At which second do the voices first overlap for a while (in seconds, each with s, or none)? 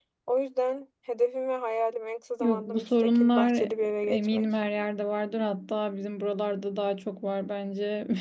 2.4 s